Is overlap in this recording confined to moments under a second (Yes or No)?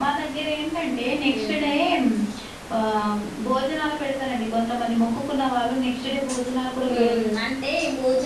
Yes